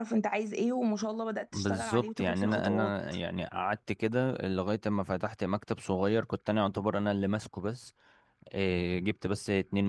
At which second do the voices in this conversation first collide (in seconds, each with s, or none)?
1.5 s